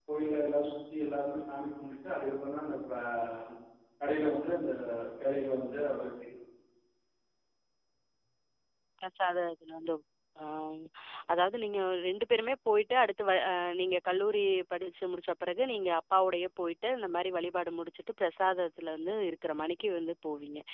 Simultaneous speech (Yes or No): No